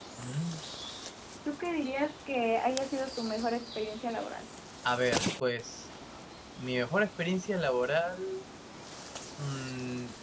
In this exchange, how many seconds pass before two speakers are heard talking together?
none

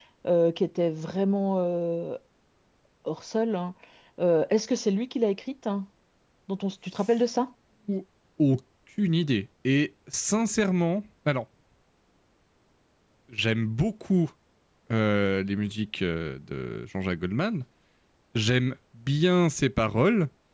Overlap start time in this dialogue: none

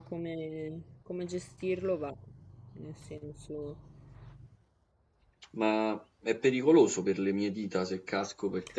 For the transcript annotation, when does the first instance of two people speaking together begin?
none

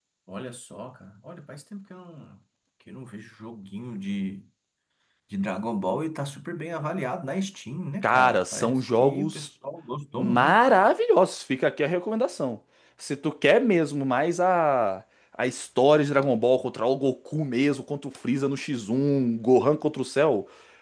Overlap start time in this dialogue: 8.0 s

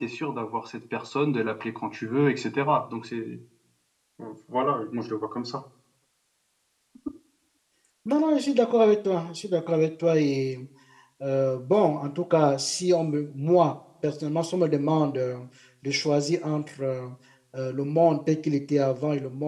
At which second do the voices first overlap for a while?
none

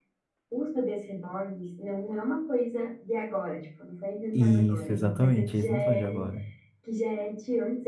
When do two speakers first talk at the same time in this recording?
4.3 s

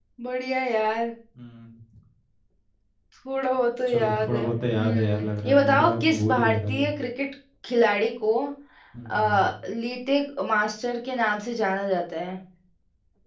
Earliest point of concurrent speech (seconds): 3.9 s

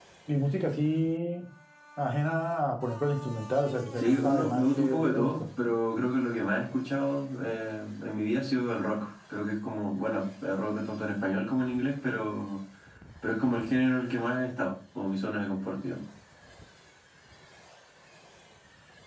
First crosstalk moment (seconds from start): 4.0 s

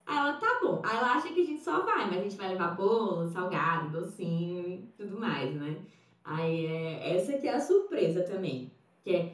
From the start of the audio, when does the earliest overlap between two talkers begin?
none

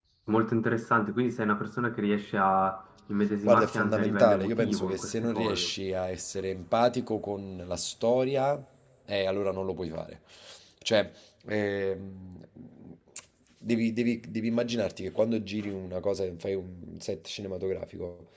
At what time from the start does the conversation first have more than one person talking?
3.5 s

